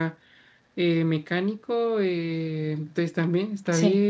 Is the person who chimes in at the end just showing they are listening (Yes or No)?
Yes